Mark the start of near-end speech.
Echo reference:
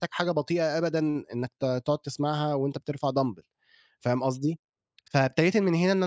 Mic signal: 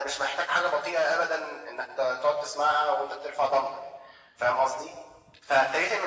none

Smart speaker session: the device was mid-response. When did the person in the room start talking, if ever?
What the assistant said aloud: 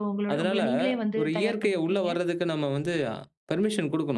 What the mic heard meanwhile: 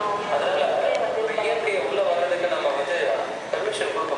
none

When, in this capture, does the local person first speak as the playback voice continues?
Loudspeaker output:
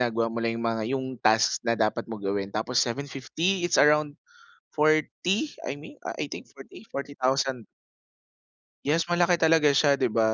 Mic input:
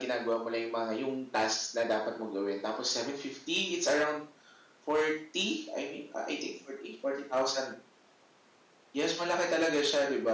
none

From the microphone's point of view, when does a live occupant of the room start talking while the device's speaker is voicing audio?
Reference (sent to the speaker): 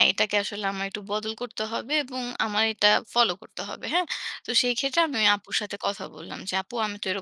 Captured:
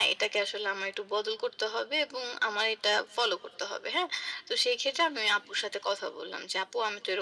none

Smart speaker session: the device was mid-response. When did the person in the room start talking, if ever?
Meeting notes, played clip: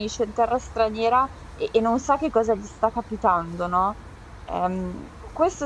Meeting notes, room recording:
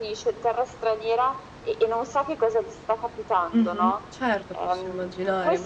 4 s

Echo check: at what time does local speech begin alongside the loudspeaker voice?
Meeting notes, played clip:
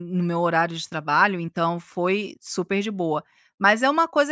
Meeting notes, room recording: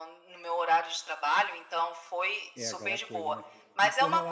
3 s

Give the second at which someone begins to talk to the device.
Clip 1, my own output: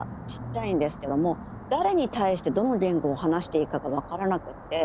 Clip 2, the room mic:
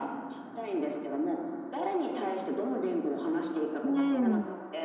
4 s

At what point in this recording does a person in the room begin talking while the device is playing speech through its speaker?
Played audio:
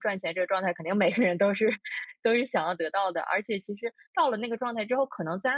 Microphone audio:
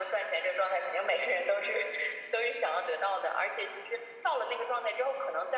none

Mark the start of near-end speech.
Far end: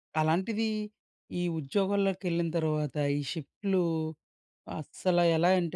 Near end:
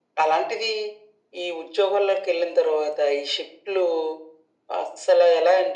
none

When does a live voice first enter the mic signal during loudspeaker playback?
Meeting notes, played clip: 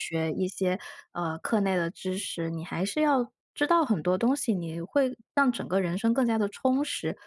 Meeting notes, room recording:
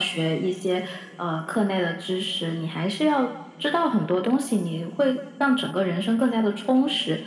none

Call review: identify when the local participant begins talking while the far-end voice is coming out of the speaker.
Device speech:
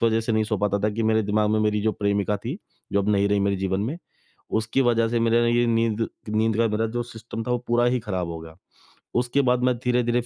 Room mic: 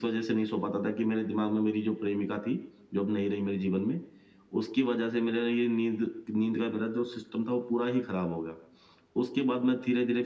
none

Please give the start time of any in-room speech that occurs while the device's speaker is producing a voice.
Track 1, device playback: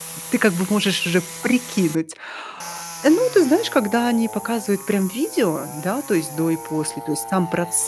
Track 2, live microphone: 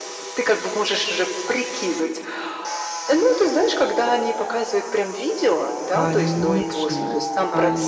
6 s

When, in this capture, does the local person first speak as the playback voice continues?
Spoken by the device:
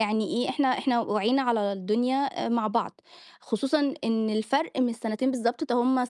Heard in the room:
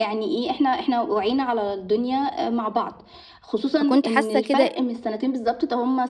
4 s

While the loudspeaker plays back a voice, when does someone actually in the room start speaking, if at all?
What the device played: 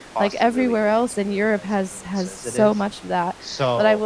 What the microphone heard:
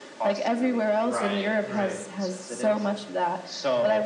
1 s

